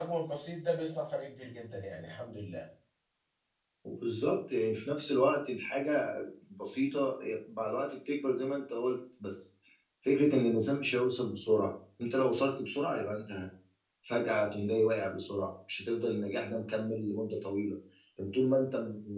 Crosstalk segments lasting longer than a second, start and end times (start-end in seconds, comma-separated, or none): none